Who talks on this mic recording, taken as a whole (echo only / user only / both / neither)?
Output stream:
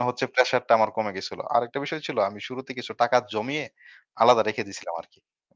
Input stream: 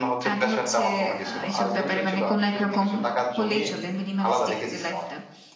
both